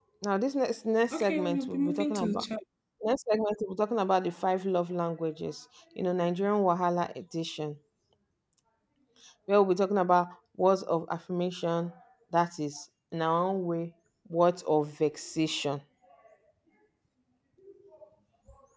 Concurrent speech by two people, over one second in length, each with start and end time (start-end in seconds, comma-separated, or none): 1.1-2.5